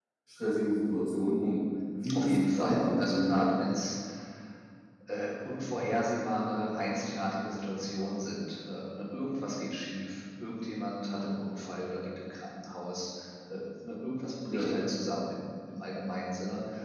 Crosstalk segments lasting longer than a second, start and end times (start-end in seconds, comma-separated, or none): 2.1-3.5